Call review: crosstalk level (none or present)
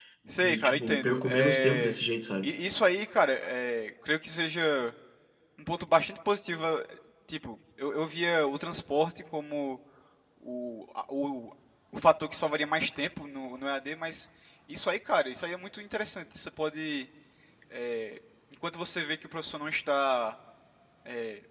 present